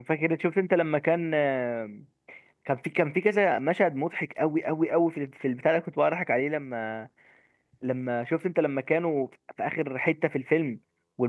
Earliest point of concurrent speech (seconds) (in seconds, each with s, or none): none